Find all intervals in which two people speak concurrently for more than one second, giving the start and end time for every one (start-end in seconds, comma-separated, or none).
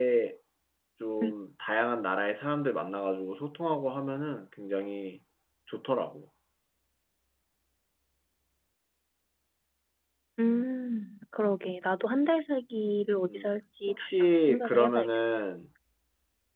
13.9-15.4